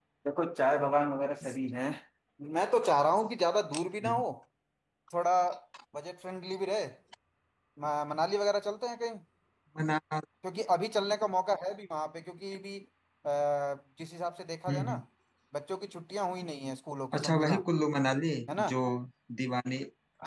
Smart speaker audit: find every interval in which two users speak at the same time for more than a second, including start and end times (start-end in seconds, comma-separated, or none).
none